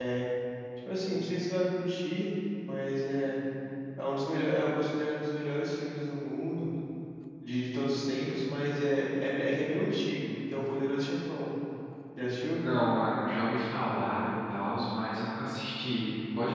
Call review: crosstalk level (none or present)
none